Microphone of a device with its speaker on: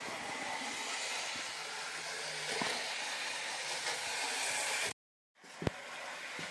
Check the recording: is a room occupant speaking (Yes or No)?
No